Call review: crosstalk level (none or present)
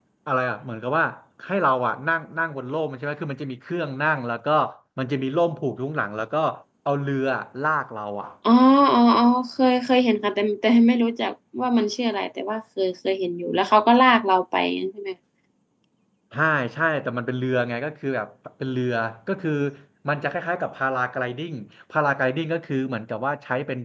none